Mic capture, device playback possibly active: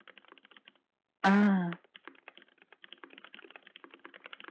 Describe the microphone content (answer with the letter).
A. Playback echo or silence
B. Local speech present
B